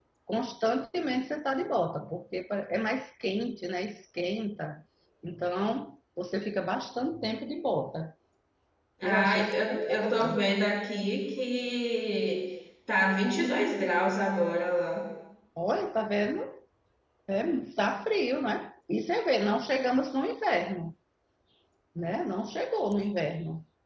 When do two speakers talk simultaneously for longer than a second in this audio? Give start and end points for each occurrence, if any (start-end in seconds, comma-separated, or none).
9.0-10.5